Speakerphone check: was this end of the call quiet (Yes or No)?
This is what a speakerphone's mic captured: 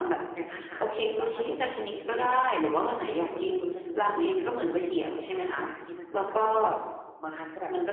Yes